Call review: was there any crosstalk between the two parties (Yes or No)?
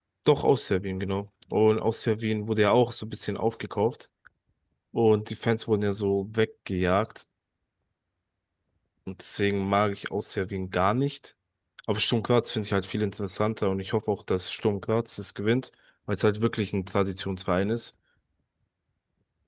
No